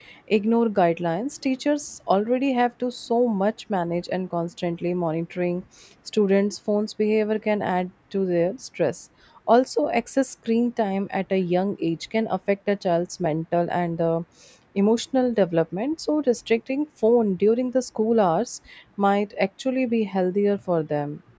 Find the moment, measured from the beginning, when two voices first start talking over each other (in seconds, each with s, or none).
none